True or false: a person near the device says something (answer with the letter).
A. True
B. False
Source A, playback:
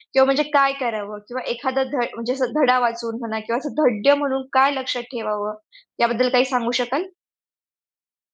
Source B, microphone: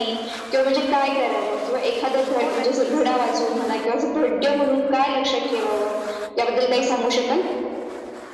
A